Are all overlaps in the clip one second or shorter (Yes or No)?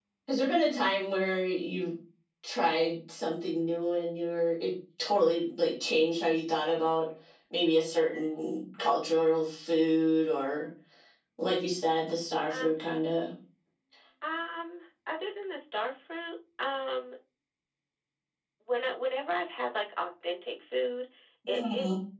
Yes